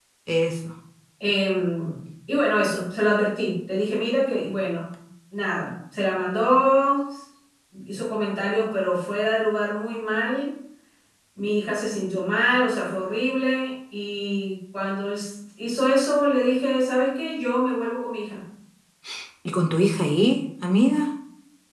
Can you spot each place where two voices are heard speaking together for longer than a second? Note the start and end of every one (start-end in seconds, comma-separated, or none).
none